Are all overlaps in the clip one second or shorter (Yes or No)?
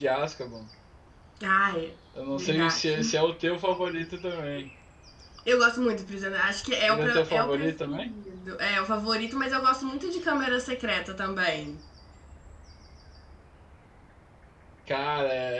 No